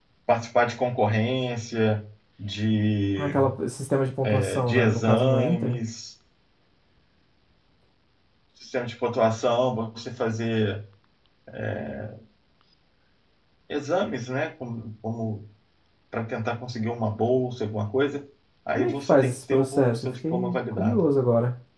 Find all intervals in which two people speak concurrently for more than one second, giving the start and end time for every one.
4.2-5.8, 18.7-21.0

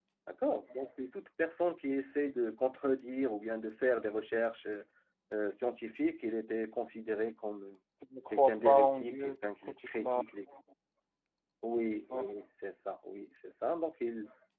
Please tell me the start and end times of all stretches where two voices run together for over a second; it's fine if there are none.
8.3-10.2

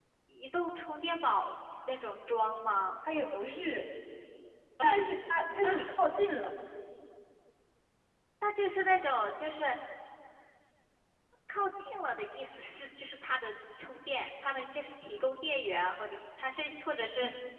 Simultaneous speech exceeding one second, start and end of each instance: none

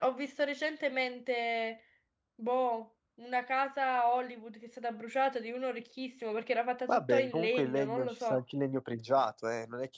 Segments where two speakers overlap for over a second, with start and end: 6.9-8.4

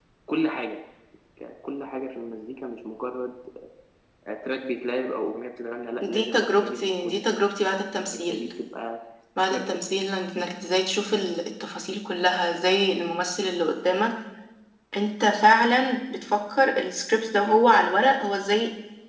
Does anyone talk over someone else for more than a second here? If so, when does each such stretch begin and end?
6.0-7.4

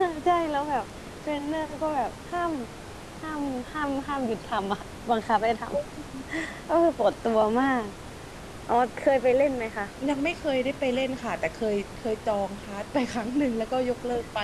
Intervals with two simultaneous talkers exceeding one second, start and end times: none

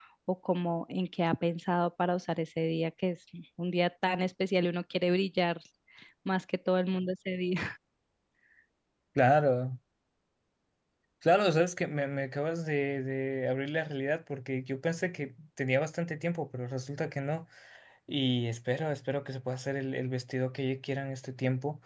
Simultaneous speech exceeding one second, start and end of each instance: none

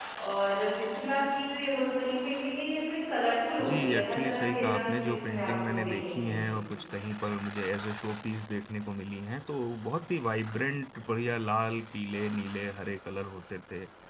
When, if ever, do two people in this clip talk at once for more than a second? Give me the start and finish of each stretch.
3.6-6.3

